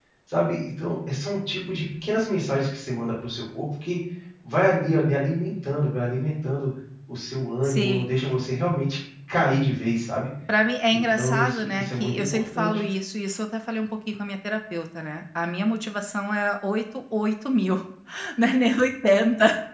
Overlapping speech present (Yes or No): Yes